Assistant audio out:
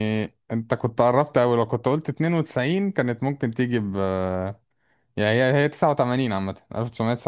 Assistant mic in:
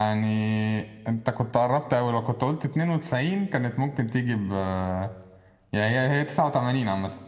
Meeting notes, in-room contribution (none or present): none